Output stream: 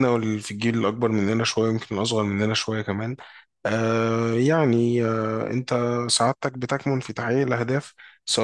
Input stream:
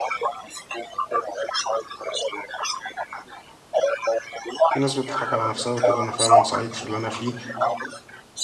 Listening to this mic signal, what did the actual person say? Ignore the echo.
في ناس بتضحك على نفسها وتقول انا فعلا سعيد في اللي انا فيه

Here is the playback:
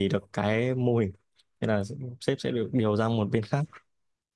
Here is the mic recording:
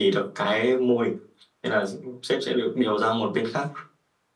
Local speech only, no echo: none

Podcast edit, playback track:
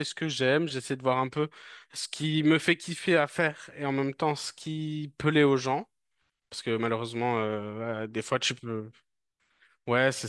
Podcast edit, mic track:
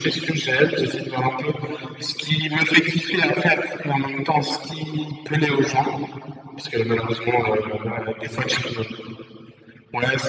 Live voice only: none

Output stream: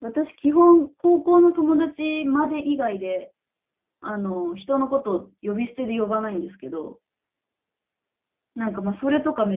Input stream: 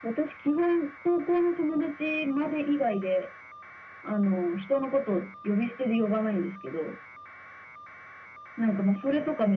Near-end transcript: none

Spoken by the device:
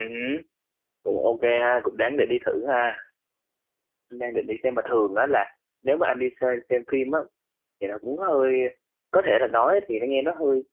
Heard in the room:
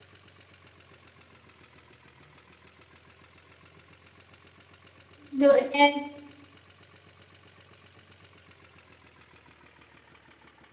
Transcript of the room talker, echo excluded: dựa trên

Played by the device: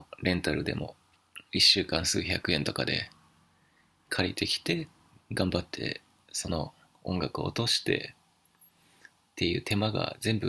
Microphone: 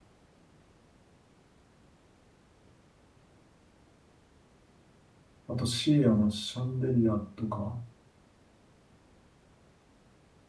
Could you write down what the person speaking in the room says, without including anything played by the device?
あと、シーアのシャンデリアとか、

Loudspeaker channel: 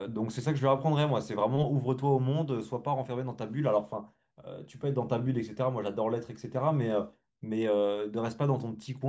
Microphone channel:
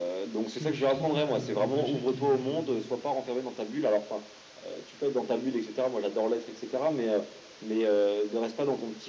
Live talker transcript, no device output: parce que je suis trop fan euh, des échecs et,

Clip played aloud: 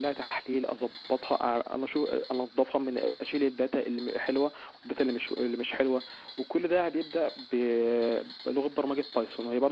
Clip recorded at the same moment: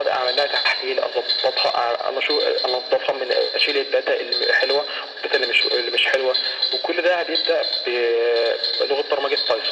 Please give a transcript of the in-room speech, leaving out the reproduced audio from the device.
none

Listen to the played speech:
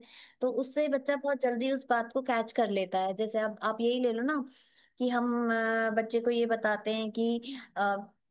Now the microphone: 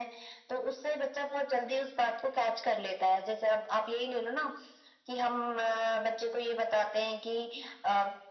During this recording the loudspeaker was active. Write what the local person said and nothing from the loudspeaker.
none

